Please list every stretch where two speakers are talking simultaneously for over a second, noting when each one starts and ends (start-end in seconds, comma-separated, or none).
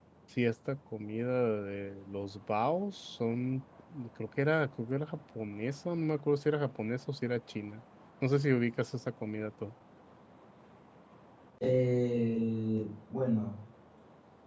none